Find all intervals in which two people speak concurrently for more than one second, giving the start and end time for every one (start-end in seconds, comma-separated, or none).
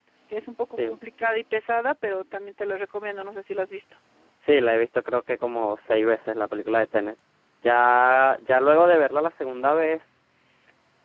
none